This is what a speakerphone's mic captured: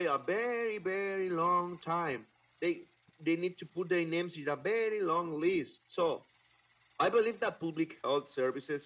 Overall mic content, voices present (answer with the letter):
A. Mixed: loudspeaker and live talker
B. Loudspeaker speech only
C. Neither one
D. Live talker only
B